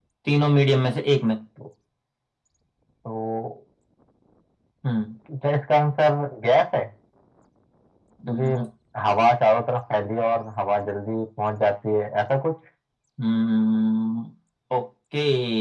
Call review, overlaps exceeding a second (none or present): none